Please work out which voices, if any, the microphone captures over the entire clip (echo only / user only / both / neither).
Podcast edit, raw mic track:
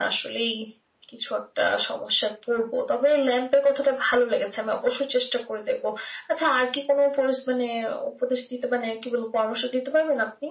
echo only